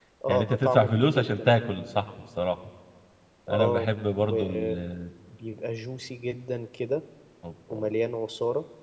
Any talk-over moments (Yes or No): Yes